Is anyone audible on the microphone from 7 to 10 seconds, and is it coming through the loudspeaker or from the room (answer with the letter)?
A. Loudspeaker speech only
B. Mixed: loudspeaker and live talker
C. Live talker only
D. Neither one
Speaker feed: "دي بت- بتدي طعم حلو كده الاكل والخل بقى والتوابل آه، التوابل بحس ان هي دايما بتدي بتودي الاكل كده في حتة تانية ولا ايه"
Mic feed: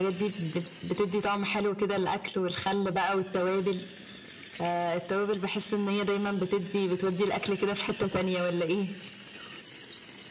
A